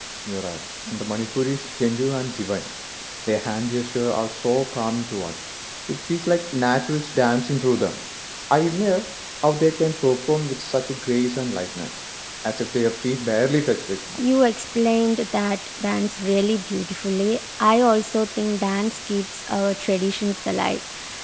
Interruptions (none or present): none